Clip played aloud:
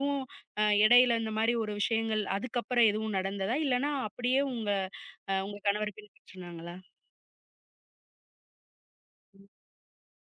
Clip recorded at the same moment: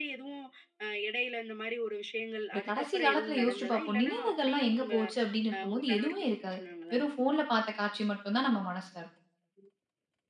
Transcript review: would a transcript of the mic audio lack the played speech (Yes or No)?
No